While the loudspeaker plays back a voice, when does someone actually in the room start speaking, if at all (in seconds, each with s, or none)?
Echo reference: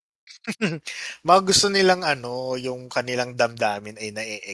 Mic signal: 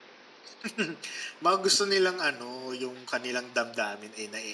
none